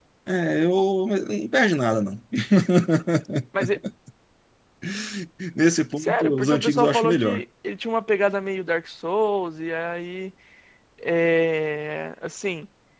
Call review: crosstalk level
present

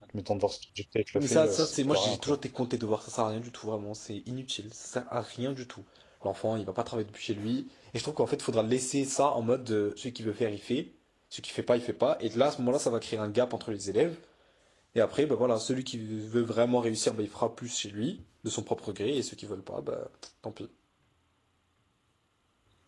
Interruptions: present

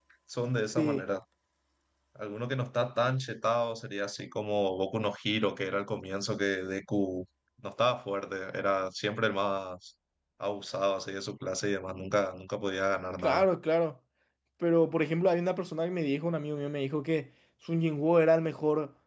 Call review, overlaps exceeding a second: none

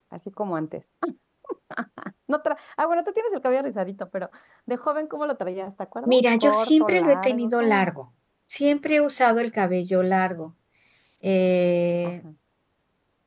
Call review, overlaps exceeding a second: present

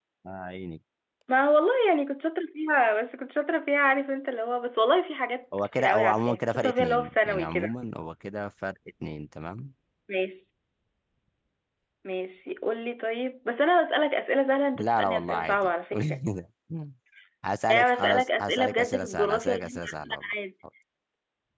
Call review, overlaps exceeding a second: present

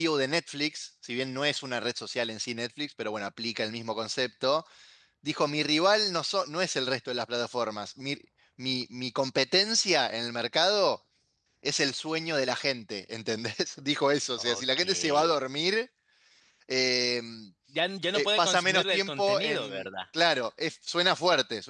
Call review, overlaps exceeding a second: present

